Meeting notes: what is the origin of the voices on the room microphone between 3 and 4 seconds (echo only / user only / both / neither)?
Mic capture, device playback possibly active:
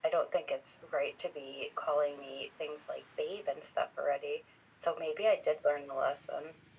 echo only